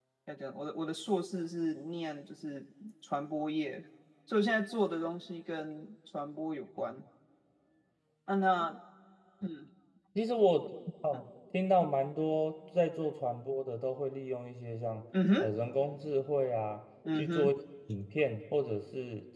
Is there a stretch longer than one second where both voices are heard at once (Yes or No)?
No